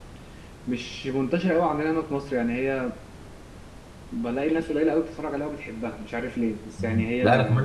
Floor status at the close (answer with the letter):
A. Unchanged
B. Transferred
B